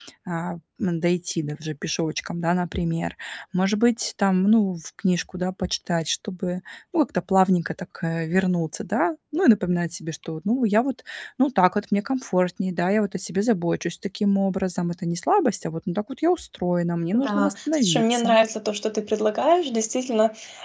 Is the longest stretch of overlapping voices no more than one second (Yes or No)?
No